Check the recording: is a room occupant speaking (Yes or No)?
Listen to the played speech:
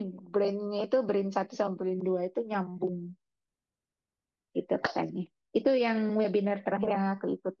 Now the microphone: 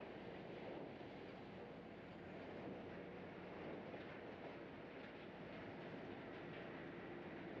No